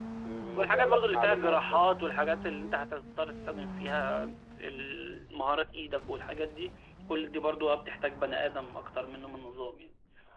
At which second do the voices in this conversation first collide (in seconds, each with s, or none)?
0.6 s